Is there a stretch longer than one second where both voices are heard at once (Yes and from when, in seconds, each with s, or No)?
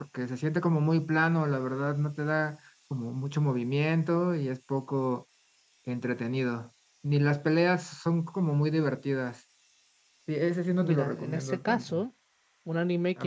Yes, from 10.8 s